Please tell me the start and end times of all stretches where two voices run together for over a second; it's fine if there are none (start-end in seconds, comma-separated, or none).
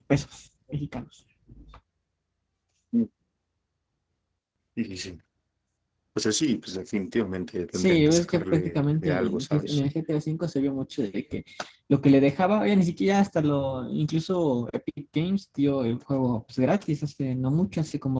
7.7-9.8